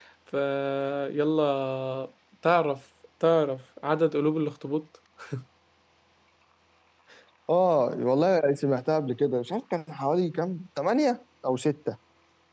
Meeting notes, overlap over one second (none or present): none